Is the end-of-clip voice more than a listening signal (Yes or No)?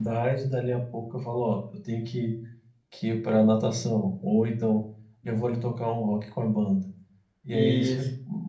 No